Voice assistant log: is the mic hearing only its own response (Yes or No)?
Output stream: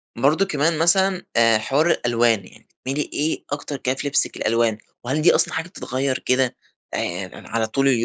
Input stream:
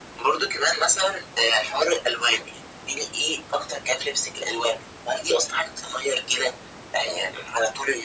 Yes